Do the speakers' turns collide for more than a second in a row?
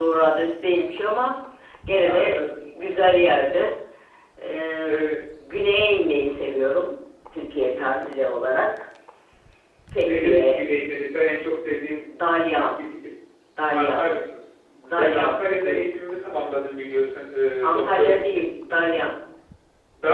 Yes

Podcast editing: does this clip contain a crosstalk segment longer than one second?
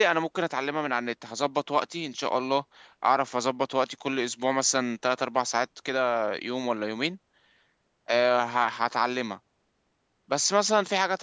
No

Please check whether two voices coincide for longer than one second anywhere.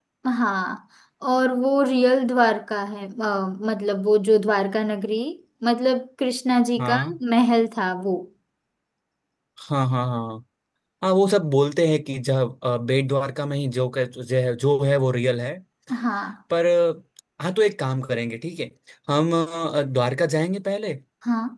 No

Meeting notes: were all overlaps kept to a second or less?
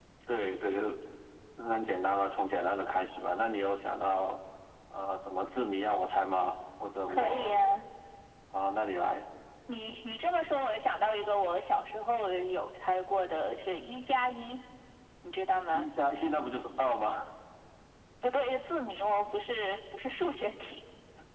Yes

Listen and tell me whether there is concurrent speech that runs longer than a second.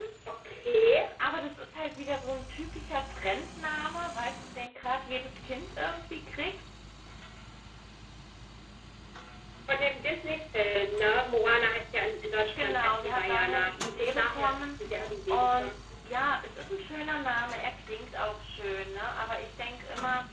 Yes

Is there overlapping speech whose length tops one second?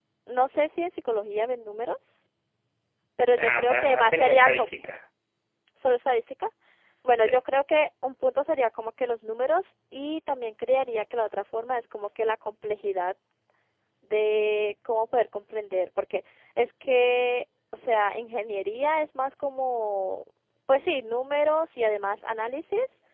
Yes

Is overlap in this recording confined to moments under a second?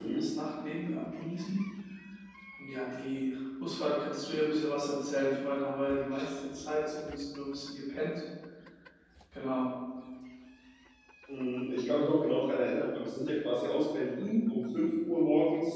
Yes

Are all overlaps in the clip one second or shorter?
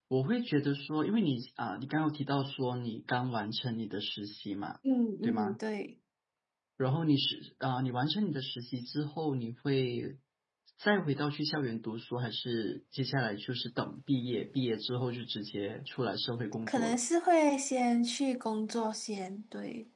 Yes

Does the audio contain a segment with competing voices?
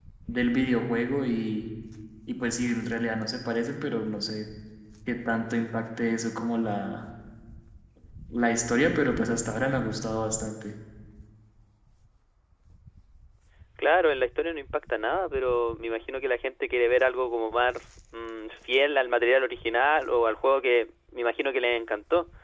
No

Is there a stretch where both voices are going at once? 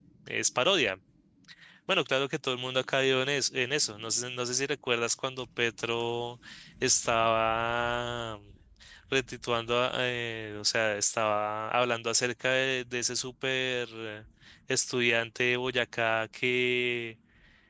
No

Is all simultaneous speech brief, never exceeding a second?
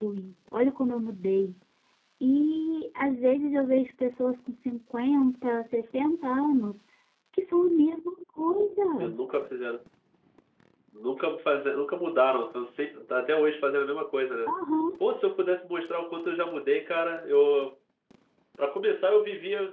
Yes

